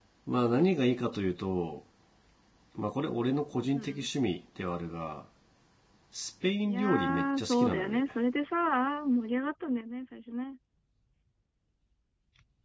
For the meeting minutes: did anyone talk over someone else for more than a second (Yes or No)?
Yes